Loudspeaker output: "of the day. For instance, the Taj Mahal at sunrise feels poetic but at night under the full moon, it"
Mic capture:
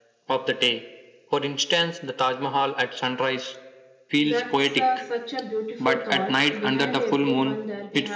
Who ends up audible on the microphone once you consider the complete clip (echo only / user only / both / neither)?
both